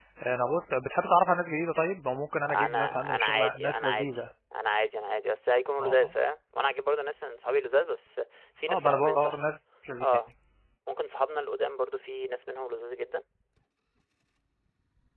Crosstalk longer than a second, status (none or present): present